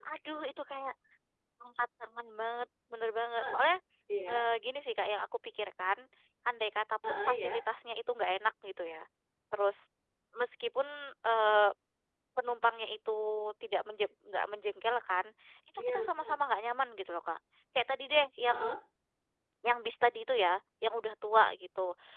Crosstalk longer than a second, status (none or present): none